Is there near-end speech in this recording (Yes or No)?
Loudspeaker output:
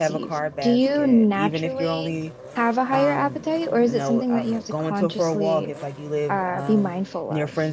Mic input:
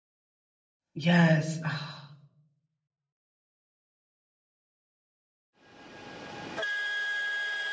Yes